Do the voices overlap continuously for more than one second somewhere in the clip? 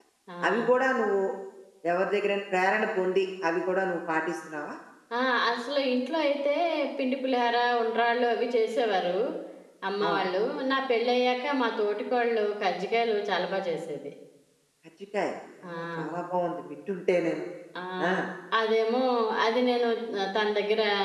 No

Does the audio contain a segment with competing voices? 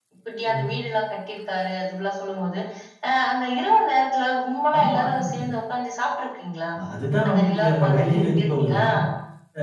Yes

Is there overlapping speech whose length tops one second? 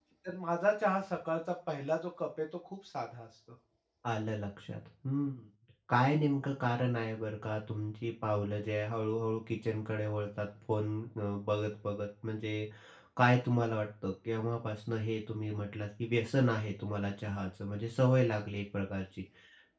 No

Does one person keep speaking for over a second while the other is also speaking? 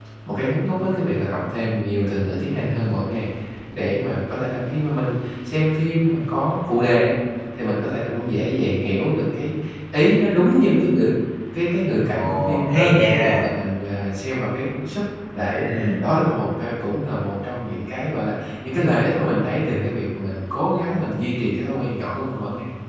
Yes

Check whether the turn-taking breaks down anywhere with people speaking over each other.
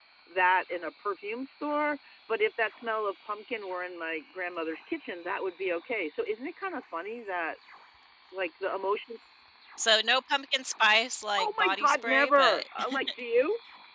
Yes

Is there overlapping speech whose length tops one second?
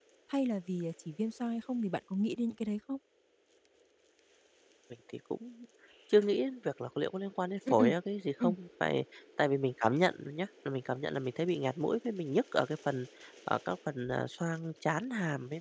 No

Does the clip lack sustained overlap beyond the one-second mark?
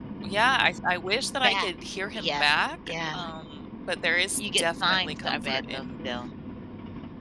No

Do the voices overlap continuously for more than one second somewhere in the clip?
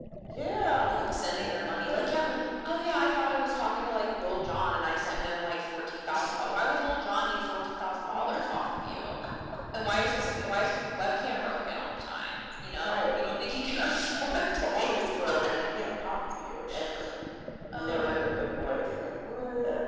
Yes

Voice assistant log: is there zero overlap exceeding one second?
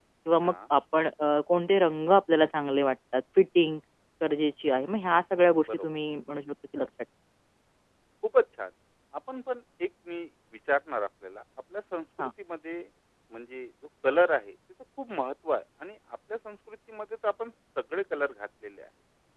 Yes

